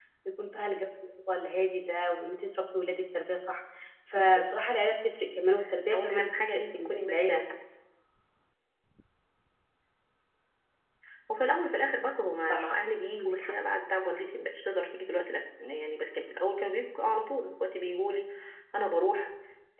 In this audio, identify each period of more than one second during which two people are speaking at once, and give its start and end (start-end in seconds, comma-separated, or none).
5.9-7.4